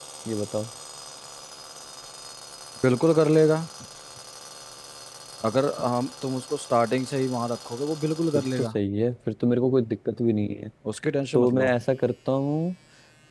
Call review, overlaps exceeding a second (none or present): none